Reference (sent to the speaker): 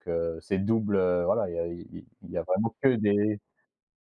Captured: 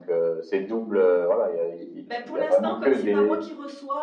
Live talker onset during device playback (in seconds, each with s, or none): 2.0 s